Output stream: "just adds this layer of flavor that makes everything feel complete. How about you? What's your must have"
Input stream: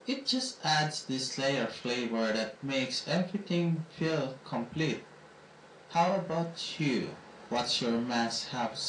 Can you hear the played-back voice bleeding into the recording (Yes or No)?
Yes